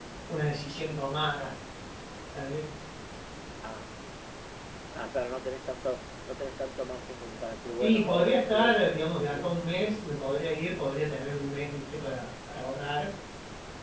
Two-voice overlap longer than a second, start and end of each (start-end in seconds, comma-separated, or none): 7.8-9.5